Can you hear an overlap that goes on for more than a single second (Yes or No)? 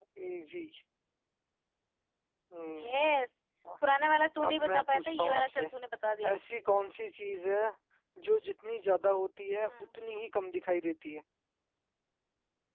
Yes